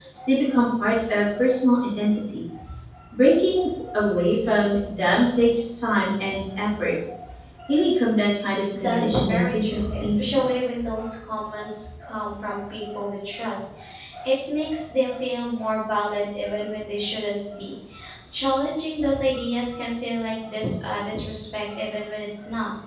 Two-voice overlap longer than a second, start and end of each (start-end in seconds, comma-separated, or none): 8.7-10.4